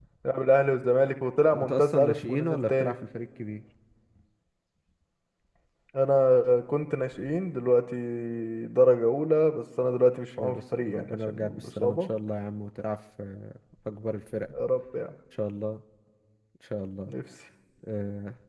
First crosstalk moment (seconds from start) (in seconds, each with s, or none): 1.5 s